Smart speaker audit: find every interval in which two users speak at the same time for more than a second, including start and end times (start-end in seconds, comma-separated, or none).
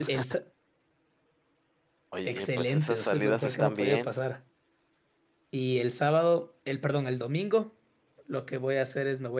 2.2-4.1